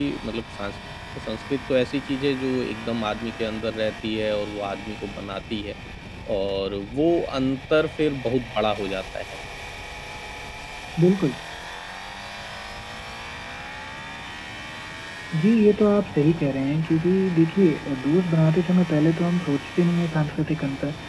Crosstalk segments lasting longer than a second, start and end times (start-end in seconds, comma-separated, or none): none